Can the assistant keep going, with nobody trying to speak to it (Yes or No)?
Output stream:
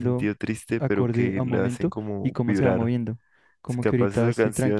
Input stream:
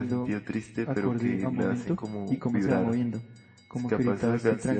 Yes